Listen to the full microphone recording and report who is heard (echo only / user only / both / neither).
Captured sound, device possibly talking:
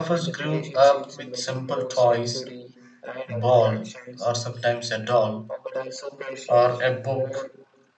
both